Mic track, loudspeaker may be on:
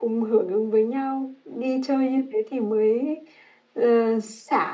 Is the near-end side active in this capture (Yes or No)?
Yes